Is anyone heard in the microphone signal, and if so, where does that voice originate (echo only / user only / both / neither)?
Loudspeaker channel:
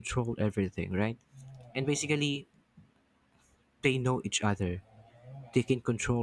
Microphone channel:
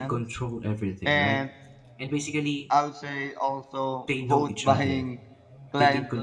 both